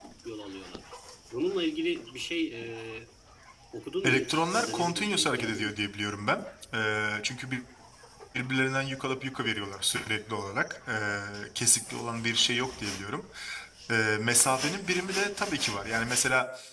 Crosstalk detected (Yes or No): Yes